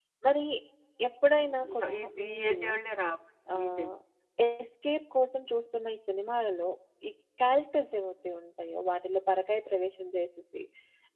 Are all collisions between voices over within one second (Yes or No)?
No